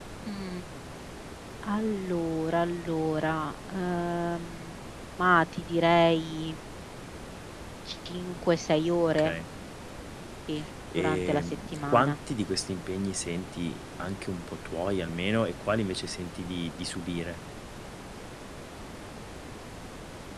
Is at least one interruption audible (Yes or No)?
Yes